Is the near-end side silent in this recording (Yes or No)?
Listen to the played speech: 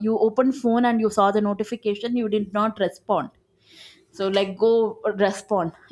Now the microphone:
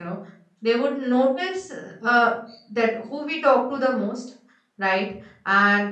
No